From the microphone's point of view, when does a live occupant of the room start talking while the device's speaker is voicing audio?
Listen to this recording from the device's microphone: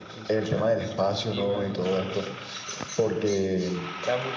none

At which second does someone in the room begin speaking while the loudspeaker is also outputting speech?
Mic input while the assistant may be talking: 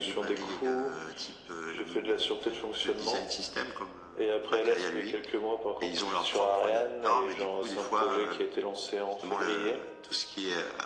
none

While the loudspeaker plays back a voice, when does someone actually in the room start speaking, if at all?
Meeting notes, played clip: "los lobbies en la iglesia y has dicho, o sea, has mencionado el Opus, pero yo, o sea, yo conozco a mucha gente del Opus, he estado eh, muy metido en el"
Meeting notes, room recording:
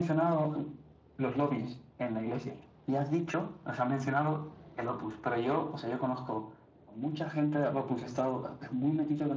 none

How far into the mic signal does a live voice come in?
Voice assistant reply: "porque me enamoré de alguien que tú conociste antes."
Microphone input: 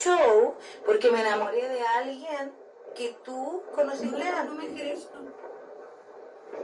3.9 s

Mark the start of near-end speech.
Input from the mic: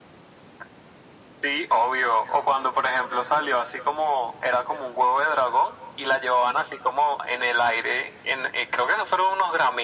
none

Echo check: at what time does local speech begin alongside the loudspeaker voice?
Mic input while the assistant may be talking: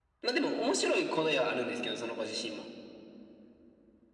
none

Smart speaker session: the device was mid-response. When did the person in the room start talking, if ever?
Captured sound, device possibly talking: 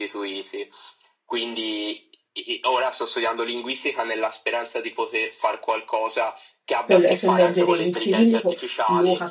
6.8 s

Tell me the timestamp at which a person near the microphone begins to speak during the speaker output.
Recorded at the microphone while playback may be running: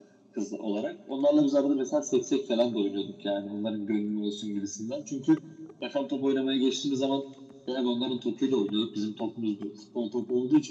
none

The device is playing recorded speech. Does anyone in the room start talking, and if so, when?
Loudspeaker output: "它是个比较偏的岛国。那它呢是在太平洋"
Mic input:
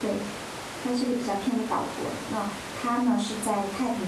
none

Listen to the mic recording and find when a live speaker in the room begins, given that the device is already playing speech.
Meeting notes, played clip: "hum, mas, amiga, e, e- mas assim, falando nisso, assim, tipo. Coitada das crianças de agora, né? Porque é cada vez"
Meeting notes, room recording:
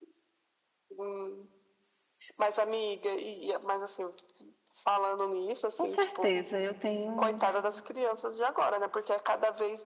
5.8 s

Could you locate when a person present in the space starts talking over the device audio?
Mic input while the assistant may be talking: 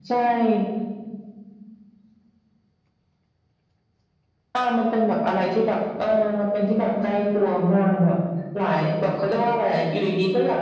none

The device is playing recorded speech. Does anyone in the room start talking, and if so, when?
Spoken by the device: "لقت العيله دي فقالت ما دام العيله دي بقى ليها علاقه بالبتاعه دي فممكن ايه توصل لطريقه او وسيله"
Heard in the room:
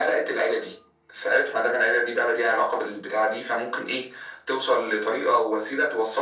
none

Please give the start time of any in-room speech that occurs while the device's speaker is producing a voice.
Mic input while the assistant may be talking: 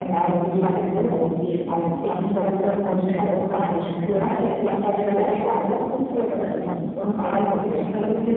6.6 s

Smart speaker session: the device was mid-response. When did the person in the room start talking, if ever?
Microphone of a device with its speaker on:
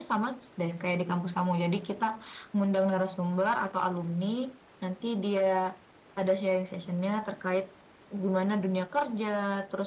none

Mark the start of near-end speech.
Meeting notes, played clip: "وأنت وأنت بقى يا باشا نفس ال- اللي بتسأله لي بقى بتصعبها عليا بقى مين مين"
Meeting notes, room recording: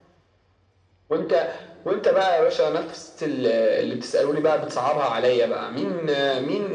none

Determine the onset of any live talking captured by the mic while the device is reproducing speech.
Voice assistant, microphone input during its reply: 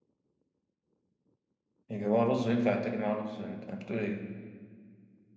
1.9 s

